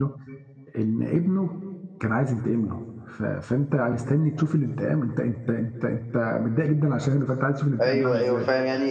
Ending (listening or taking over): taking over